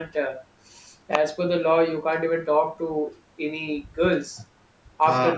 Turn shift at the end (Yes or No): No